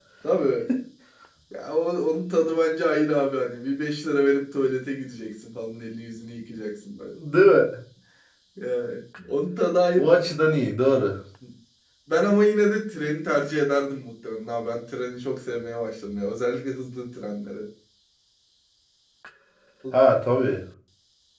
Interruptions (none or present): none